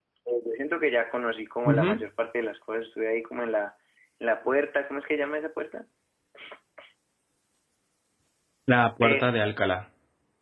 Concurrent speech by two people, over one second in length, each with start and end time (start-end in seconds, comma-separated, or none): none